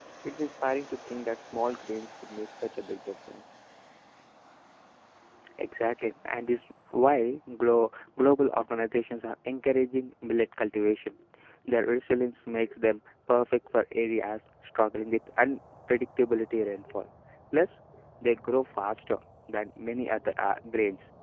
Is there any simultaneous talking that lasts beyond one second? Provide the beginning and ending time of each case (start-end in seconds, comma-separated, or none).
none